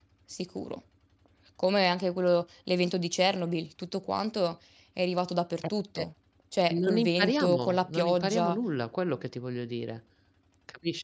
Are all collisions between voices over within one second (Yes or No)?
No